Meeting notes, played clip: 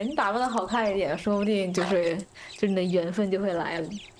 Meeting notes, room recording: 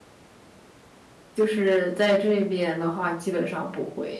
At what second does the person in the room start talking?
1 s

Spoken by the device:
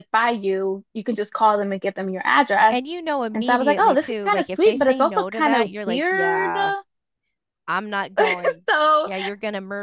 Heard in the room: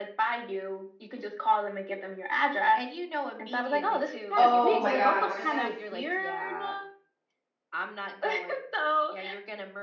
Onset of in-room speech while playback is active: 4 s

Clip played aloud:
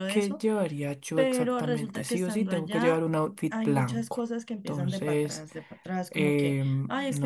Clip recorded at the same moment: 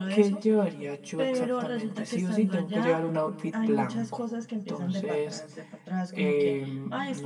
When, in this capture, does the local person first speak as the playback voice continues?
none

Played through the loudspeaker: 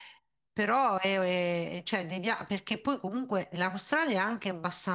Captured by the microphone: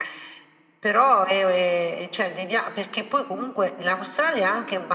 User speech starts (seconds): none

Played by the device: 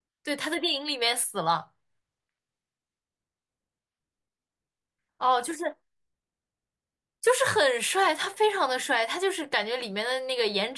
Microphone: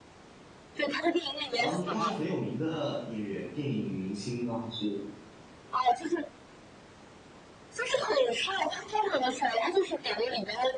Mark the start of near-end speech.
2 s

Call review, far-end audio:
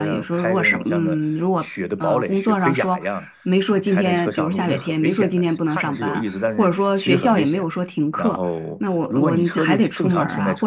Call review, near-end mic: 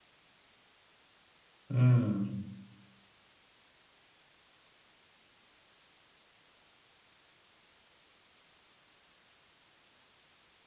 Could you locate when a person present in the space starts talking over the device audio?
2 s

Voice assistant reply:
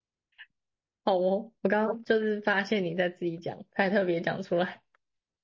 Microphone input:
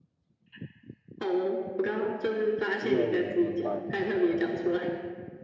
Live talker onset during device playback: 3 s

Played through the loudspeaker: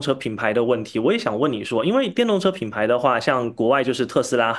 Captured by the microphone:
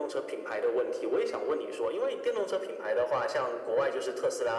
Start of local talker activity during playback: none

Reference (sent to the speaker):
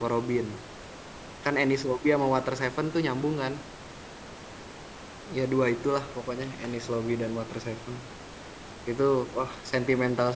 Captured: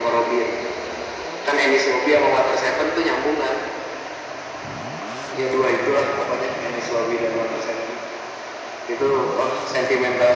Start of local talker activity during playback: none

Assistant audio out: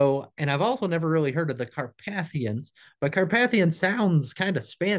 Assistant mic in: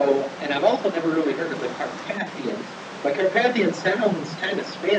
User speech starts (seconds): none

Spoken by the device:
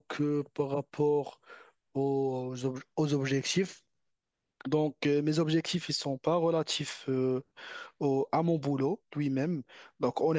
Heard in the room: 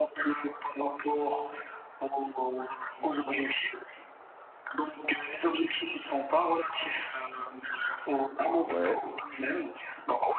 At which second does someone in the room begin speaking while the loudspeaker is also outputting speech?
9 s

